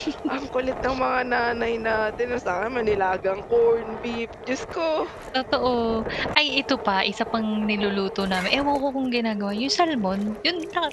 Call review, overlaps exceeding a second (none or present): none